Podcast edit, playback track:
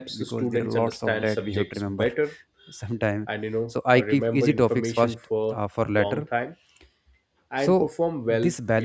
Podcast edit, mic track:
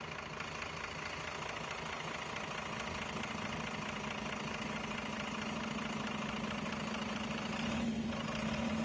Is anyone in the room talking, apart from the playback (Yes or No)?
No